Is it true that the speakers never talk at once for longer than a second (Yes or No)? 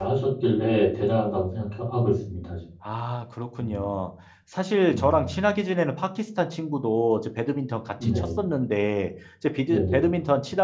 Yes